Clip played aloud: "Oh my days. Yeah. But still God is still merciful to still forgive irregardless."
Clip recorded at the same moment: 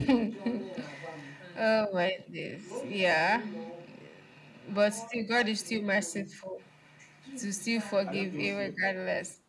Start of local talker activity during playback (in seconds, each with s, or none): 8.0 s